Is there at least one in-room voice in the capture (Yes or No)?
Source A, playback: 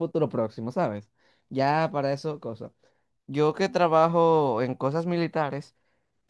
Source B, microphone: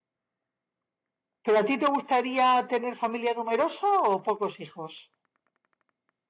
Yes